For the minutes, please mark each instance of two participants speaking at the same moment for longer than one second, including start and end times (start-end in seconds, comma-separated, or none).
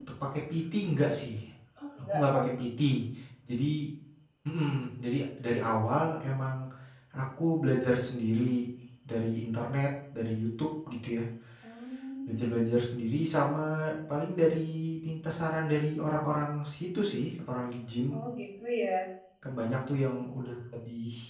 none